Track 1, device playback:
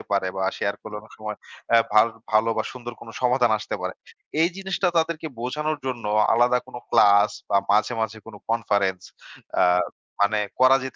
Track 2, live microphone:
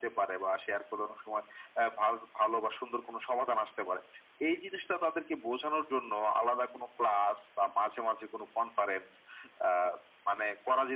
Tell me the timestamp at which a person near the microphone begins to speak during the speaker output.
none

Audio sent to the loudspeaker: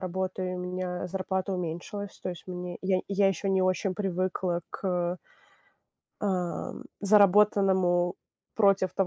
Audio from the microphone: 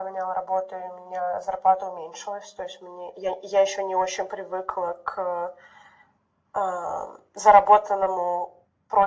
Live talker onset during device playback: none

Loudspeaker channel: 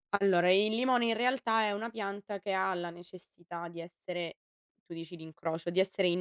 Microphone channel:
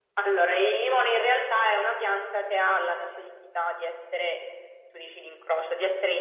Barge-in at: none

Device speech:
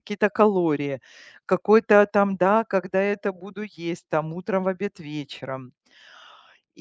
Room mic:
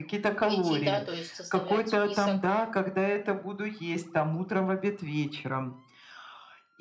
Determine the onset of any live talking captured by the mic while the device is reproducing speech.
0.5 s

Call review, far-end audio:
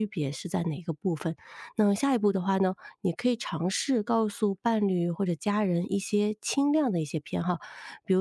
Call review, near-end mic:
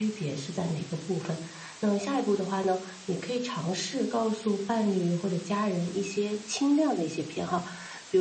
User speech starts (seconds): none

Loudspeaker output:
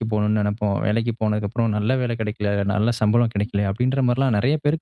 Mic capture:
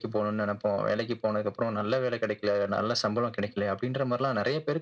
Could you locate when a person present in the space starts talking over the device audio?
none

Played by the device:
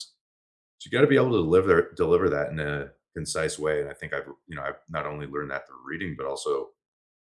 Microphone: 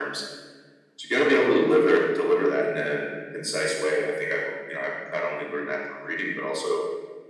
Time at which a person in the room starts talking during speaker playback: none

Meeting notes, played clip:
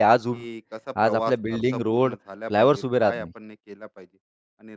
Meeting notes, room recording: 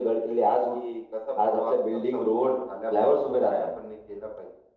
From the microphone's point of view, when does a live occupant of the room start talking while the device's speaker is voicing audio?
none

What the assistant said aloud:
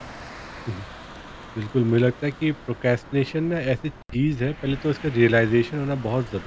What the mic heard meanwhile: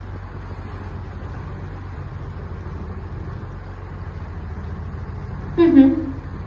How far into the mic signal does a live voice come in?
5.6 s

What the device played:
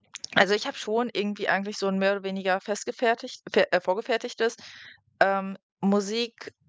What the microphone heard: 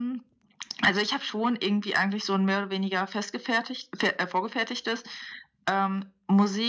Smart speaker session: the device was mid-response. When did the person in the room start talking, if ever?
none

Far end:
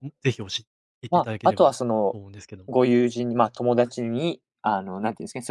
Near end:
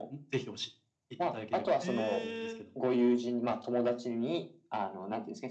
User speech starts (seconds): 1.8 s

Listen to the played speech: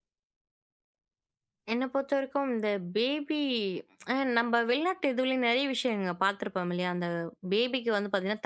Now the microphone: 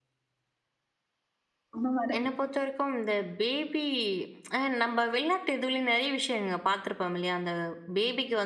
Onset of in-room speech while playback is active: 1.7 s

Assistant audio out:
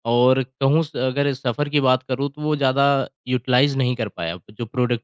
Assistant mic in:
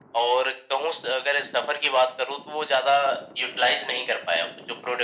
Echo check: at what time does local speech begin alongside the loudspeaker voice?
none

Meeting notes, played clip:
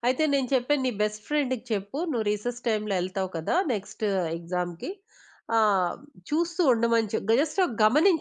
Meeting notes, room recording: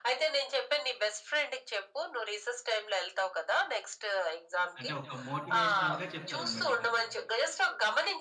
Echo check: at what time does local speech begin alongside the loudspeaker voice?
4.8 s

